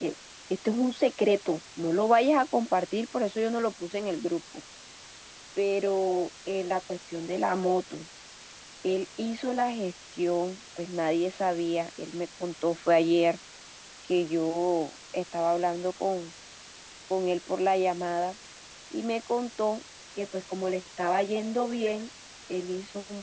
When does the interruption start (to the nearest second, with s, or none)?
none